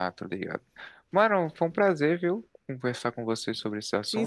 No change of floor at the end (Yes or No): No